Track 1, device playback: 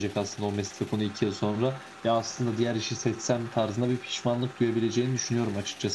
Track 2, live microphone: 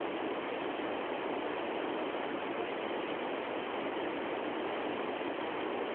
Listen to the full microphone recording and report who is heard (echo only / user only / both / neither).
neither